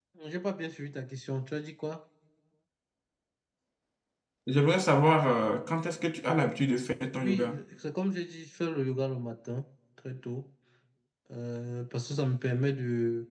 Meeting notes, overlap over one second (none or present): none